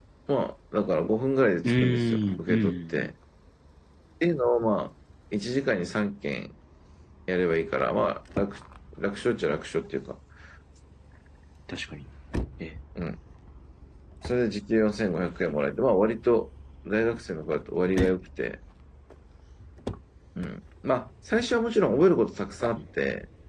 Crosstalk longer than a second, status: present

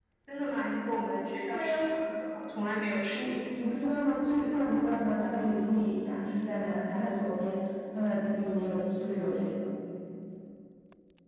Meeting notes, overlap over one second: none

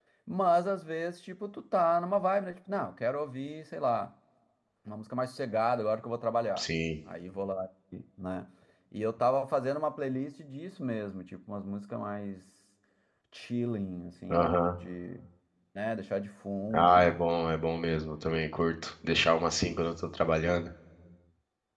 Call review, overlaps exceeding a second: none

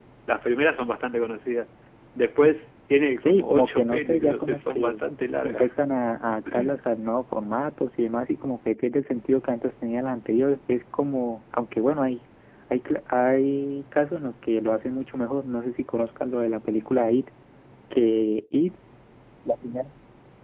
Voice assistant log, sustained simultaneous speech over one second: present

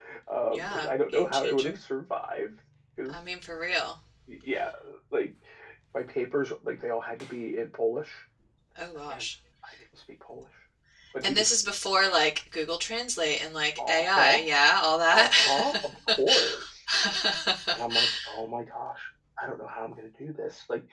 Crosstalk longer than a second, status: present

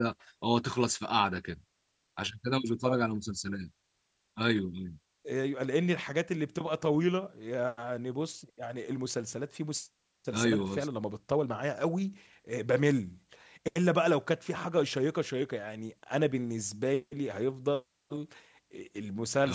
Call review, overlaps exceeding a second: none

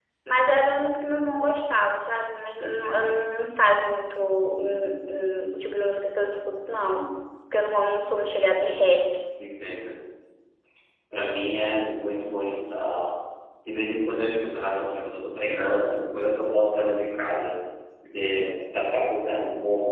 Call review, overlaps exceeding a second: none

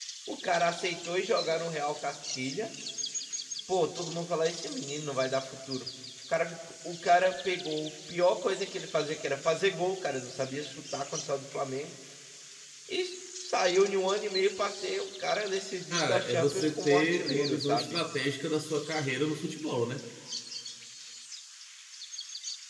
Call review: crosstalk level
present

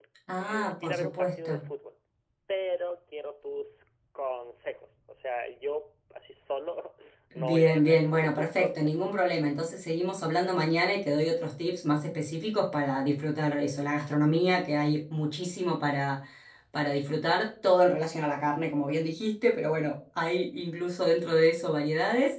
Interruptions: present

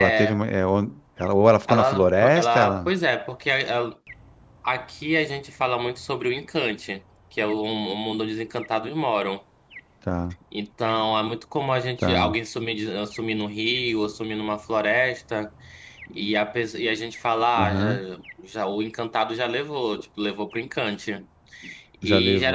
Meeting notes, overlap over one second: present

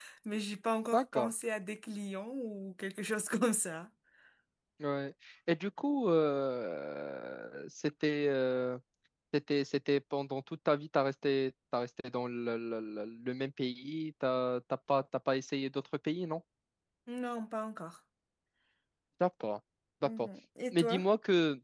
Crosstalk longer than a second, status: none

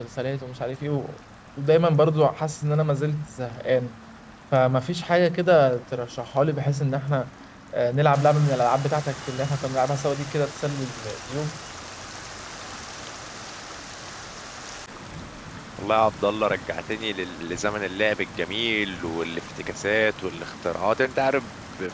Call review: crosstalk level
none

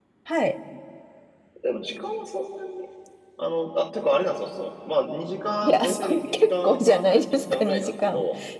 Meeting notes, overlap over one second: present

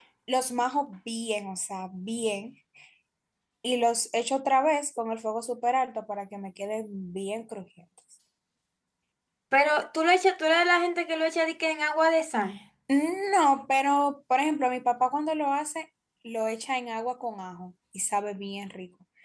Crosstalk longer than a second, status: none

